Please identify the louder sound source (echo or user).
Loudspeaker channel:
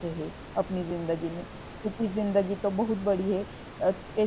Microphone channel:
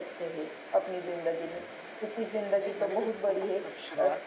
echo